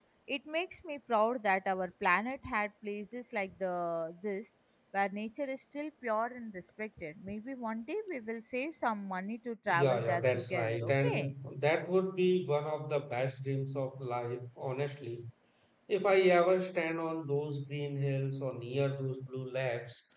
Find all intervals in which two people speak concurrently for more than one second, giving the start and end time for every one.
9.7-11.3

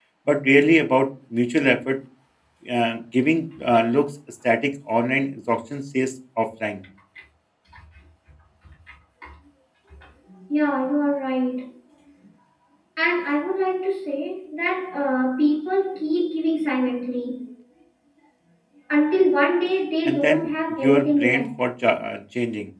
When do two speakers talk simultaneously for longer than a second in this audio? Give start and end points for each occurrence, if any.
20.0-21.5

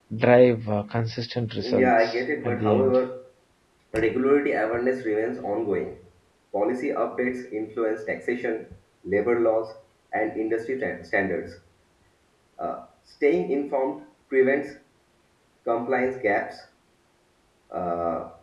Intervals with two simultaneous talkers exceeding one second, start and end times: 1.6-3.0

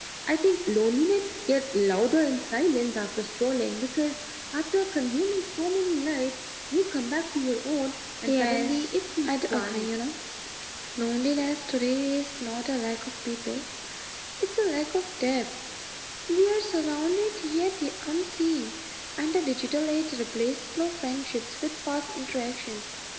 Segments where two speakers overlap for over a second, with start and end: 8.2-9.9

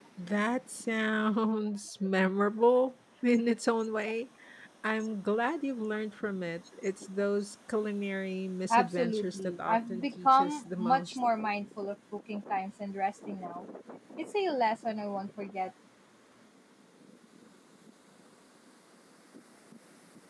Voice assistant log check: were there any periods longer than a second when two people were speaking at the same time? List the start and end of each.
8.7-11.2

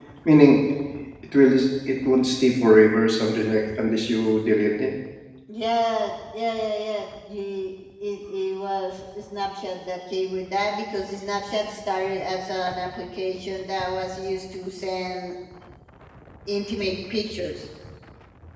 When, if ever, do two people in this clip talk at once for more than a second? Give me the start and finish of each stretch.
none

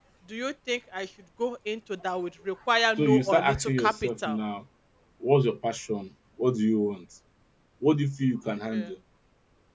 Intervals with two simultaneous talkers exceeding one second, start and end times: 3.0-4.3

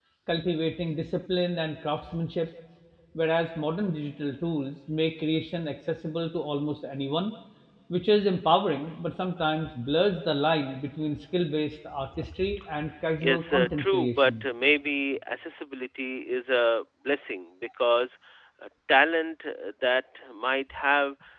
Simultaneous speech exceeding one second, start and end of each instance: 13.2-14.4

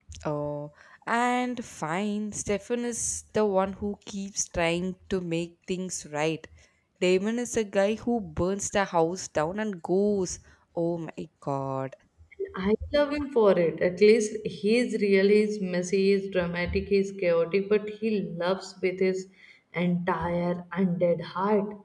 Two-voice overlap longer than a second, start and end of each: none

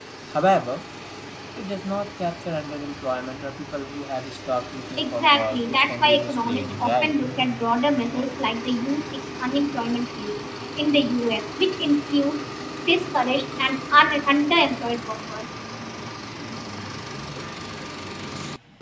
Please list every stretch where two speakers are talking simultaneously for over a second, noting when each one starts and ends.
5.0-7.1

